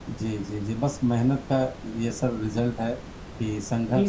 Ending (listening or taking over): listening